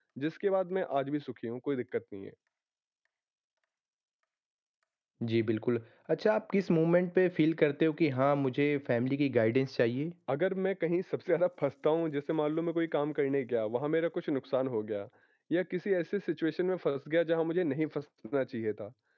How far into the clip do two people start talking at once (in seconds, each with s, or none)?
none